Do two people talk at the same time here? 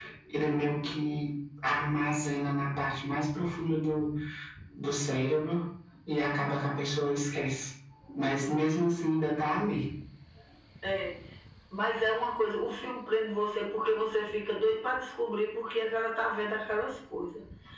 No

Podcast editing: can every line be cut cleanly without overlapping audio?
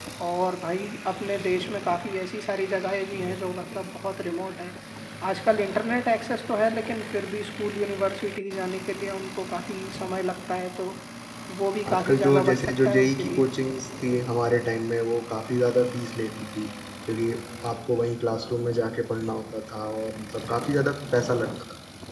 No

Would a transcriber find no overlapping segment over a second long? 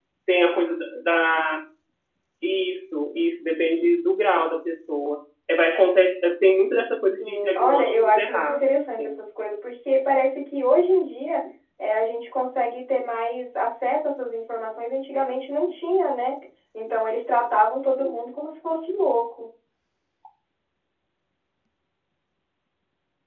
No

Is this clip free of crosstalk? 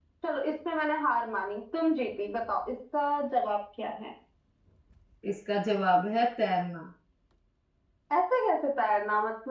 Yes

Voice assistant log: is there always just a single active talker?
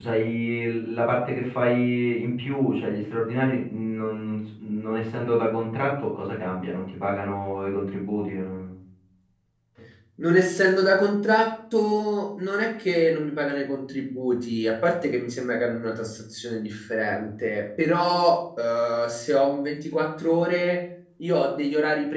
Yes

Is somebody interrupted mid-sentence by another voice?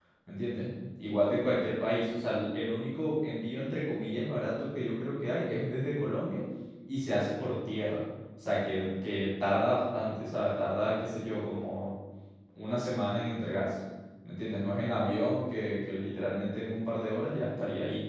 No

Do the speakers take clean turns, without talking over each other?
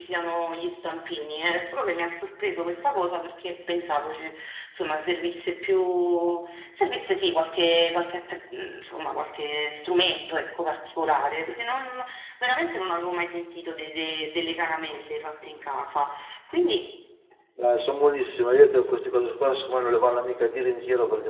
Yes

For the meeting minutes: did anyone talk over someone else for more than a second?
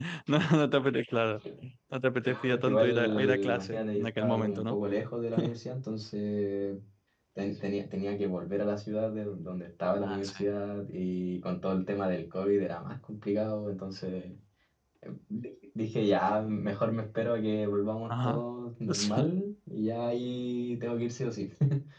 Yes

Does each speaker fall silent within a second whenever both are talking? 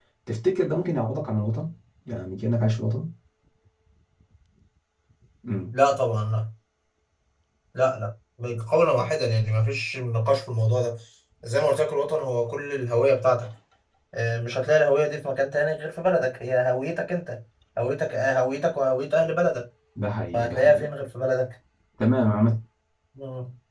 Yes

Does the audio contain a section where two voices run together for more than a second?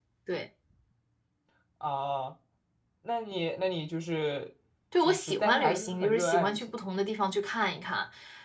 Yes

